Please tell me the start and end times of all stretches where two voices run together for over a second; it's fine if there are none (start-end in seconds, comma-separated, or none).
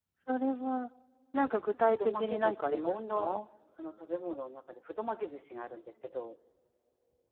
1.8-3.4